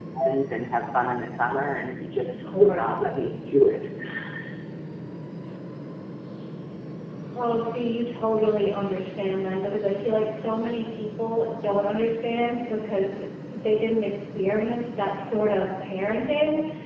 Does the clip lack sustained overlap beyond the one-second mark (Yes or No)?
Yes